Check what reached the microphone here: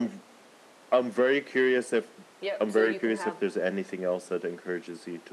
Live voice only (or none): Yep. So you can have,